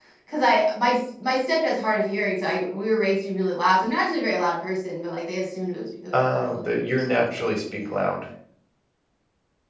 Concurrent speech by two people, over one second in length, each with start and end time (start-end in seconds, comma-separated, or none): 6.1-7.7